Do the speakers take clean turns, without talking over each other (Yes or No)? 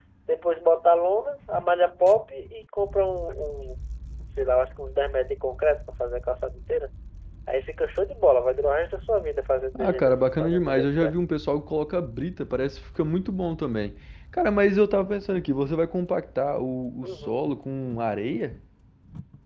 No